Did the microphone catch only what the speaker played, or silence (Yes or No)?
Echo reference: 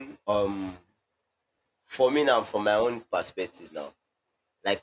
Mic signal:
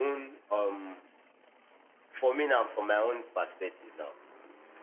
Yes